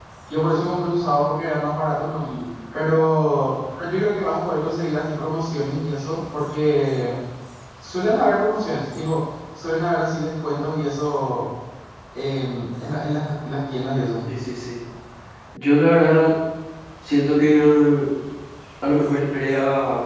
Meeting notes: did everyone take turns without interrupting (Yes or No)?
Yes